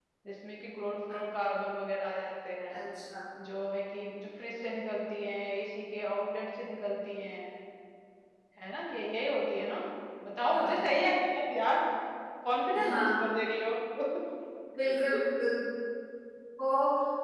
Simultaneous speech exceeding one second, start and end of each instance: none

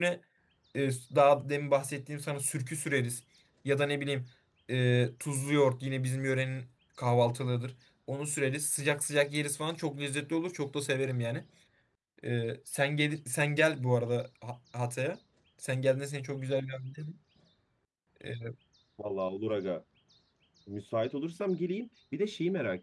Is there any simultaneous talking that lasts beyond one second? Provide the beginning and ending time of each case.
none

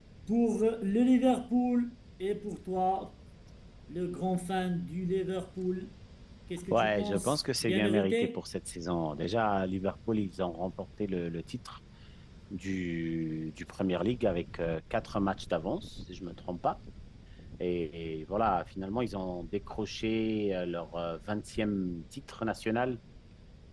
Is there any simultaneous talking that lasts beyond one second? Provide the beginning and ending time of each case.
6.7-8.4

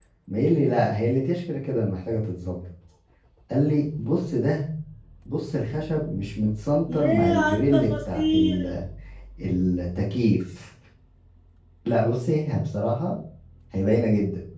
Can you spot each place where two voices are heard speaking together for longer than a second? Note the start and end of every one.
6.9-8.8

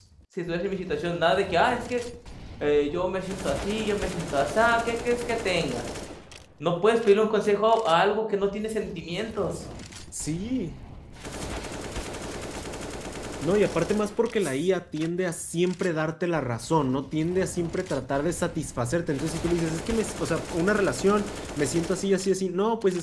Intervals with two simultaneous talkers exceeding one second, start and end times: none

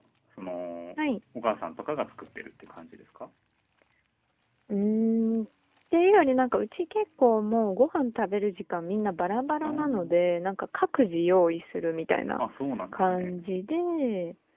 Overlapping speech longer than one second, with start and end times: none

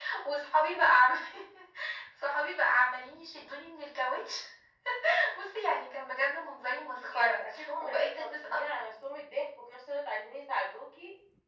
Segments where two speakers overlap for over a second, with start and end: 7.1-8.6

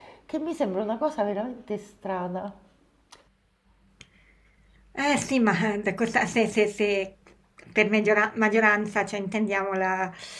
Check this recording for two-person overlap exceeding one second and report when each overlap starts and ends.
none

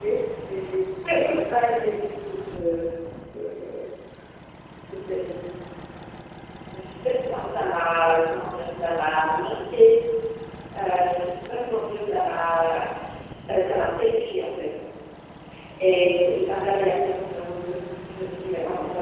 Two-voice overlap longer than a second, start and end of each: none

